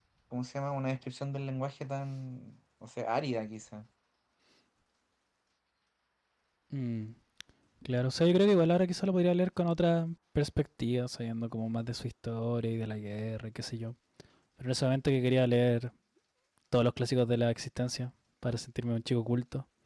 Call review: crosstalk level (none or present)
none